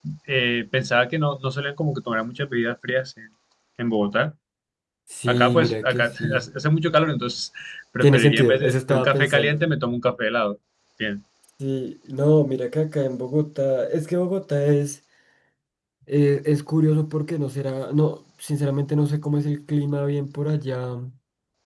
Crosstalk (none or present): present